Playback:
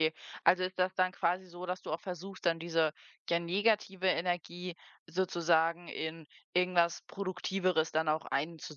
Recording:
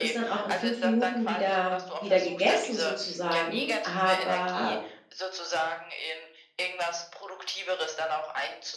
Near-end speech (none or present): present